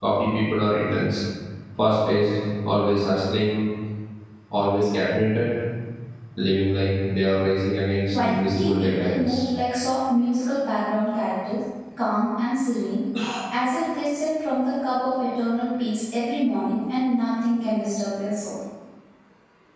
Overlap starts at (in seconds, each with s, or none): 8.1 s